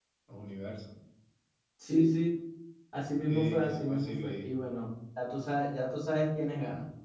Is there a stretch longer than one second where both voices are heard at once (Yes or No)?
Yes